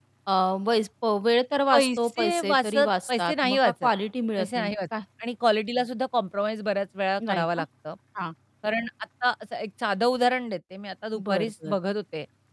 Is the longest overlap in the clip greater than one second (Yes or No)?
Yes